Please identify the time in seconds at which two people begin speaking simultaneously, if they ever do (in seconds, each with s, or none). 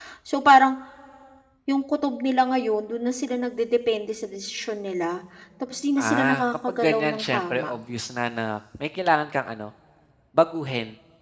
6.0 s